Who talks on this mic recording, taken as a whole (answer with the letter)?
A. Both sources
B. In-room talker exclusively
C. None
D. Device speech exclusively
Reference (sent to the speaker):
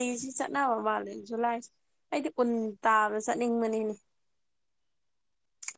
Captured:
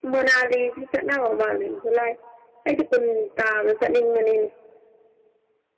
D